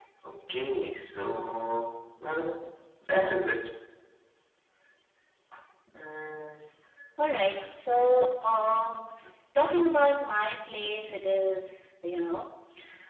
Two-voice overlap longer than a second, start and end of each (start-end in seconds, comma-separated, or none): none